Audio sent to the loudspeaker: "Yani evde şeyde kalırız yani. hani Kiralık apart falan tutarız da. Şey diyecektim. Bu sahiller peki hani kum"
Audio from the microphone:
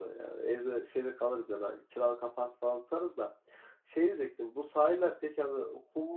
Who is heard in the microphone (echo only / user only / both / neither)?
echo only